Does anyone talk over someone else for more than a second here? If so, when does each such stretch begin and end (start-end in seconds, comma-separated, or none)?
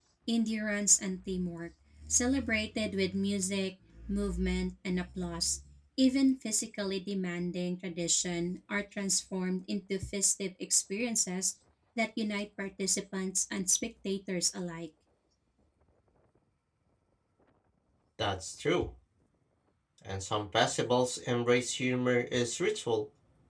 none